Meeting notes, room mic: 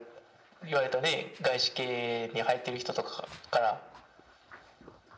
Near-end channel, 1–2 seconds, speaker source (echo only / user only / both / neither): echo only